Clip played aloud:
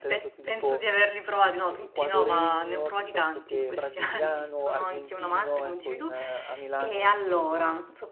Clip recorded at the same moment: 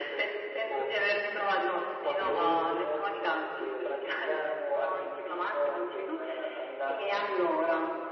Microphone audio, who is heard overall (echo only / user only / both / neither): echo only